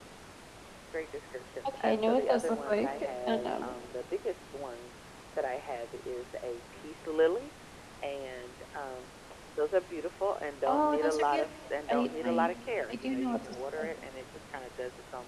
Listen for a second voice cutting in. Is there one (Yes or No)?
Yes